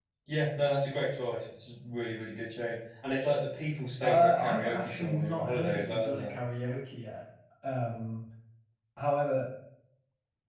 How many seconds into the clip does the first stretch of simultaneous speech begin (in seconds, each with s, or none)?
4.0 s